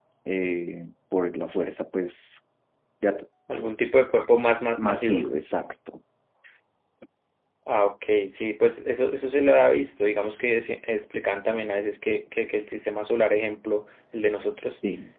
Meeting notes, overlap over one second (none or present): none